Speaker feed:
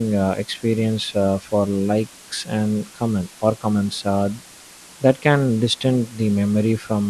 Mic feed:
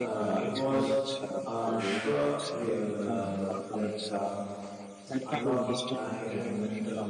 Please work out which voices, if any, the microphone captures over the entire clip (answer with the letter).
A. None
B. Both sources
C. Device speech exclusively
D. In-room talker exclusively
B